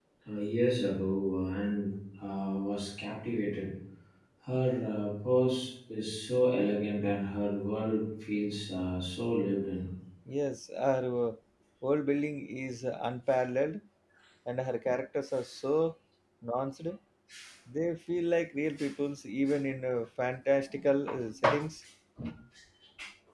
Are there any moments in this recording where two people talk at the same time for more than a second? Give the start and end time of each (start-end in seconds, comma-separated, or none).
none